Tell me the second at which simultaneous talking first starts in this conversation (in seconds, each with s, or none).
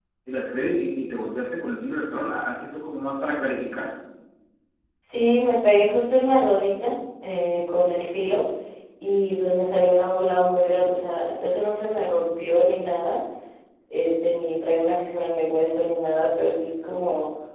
none